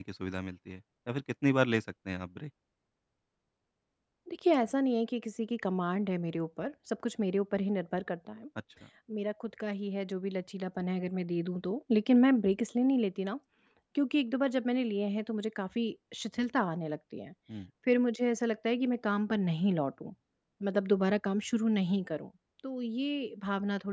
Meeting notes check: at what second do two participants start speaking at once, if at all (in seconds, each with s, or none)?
none